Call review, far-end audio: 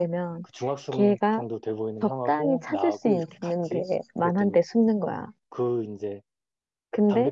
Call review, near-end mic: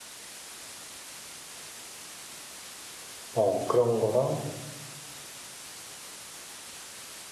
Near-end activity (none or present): present